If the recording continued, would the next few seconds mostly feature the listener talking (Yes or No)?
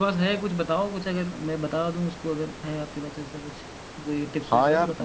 Yes